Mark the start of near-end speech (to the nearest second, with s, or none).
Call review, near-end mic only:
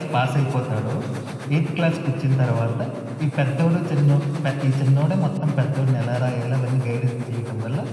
none